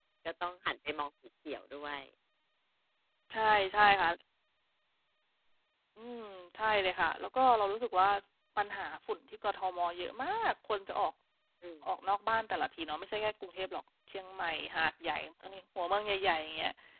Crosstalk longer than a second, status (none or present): none